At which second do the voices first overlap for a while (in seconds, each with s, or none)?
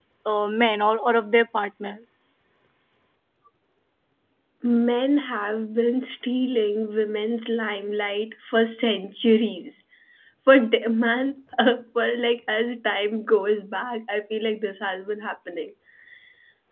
none